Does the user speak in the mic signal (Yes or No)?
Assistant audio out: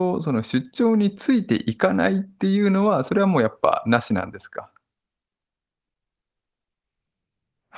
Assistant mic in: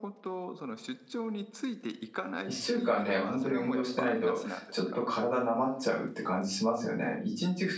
Yes